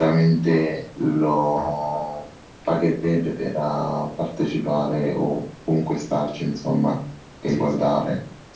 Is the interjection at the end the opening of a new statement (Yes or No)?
Yes